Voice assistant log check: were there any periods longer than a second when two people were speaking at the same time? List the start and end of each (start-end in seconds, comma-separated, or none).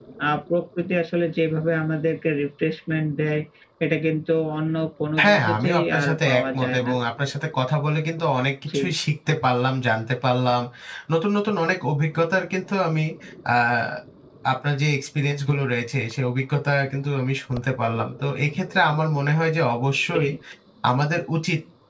5.2-6.9